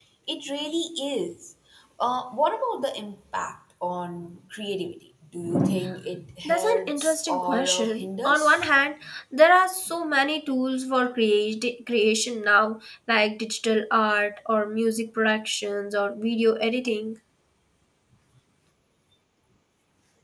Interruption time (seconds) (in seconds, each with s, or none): 6.4 s